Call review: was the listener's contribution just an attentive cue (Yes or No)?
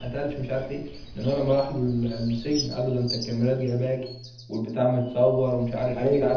Yes